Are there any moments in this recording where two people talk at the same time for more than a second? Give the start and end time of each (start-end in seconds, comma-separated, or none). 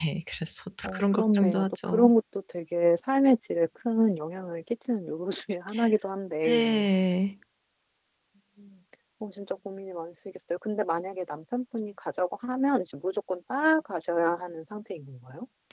0.8-2.1